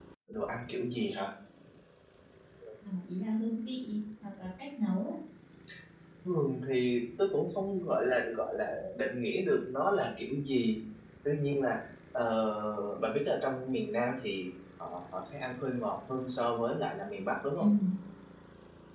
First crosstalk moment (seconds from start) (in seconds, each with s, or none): none